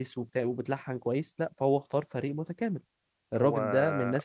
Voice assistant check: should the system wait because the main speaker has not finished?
Yes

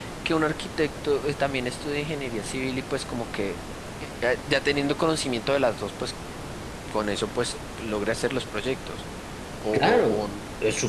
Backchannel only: No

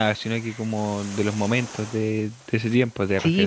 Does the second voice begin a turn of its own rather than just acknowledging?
Yes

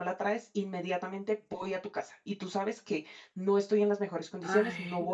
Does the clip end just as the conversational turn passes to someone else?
No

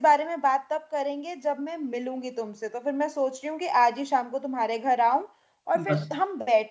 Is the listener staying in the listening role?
Yes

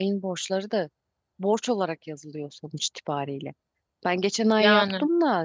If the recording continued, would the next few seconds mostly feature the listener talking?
No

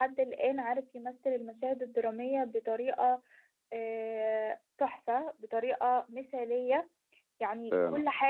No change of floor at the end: Yes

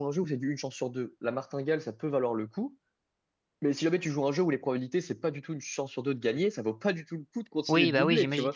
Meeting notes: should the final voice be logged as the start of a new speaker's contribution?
Yes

